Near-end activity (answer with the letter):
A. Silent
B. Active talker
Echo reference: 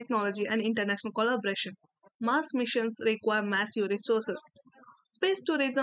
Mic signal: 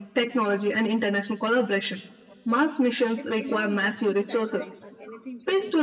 B